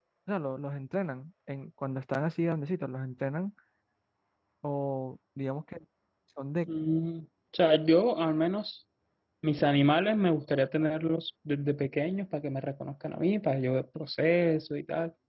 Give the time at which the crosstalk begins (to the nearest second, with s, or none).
none